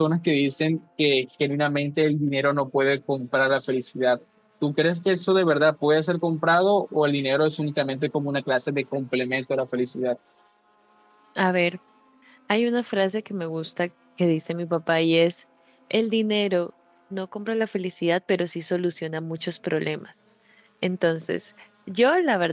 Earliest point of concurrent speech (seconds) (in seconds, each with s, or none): none